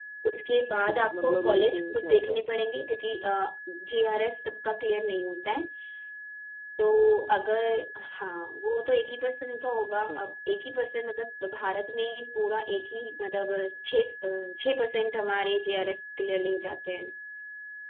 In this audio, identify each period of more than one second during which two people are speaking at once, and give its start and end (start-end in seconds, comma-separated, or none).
0.9-2.6